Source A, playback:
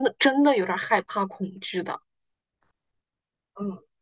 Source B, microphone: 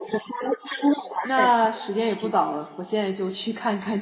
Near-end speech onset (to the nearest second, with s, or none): 1 s